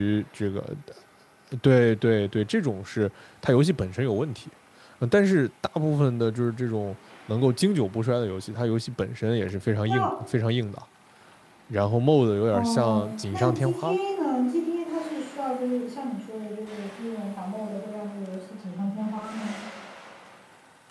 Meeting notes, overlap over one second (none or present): present